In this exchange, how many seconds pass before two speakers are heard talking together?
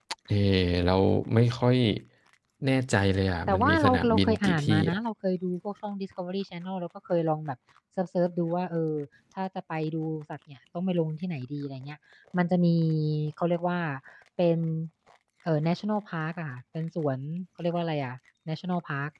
3.5 s

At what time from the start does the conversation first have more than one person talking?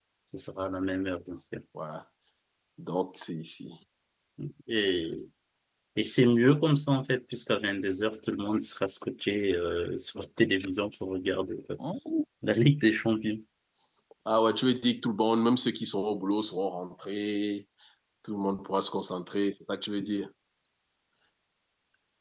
none

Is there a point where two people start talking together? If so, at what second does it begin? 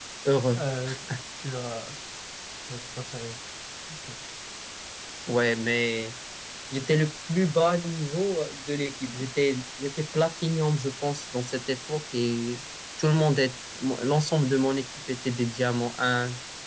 none

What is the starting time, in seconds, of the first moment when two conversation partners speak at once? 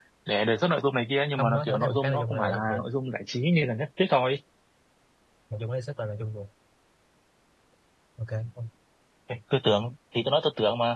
1.4 s

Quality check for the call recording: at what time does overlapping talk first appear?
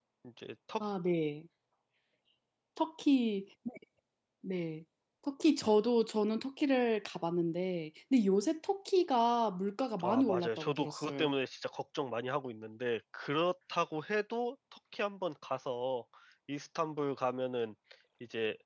10.0 s

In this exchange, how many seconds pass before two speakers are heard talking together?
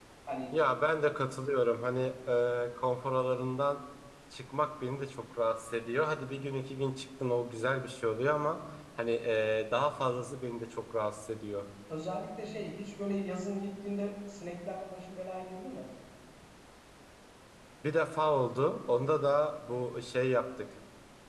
none

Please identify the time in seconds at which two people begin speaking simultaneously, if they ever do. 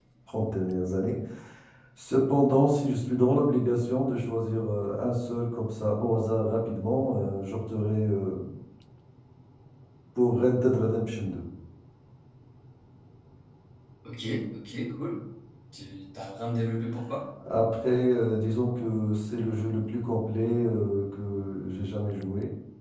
none

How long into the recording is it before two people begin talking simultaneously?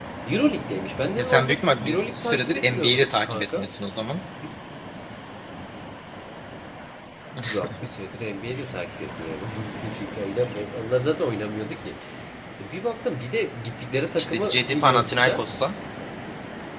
1.2 s

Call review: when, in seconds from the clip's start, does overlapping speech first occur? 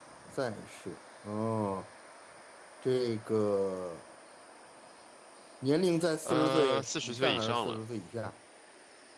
6.2 s

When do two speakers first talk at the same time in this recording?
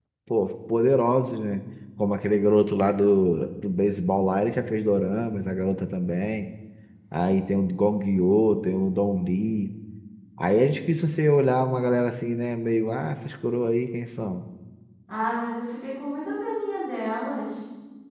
none

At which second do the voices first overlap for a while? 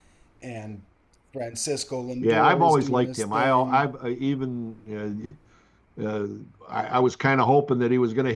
2.2 s

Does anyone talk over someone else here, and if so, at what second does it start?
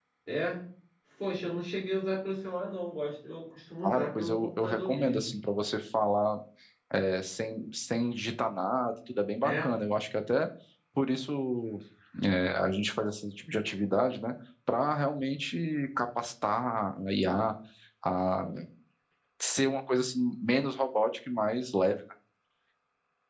3.8 s

